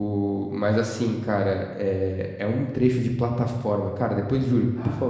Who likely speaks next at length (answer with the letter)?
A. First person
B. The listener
A